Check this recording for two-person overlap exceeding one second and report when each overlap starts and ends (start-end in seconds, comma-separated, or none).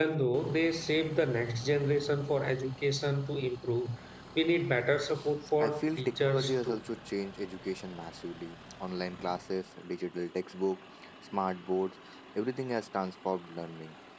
5.6-6.8